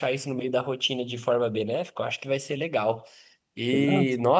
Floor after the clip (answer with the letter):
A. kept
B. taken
A